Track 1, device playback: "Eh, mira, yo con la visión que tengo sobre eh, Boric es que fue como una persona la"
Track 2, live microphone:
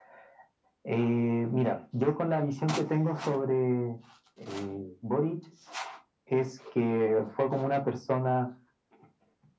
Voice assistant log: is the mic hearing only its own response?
Yes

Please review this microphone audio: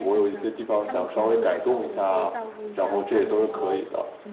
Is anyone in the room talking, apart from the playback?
Yes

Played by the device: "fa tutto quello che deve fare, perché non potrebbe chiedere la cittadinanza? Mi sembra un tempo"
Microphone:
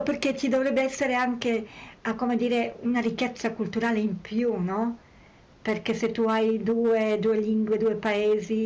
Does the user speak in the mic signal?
Yes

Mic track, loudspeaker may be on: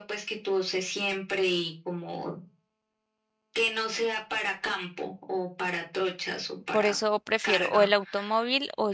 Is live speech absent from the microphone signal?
No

